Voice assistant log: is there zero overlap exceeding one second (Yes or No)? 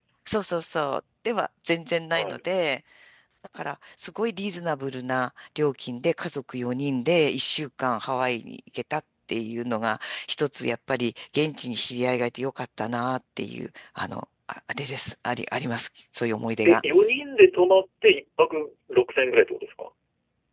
Yes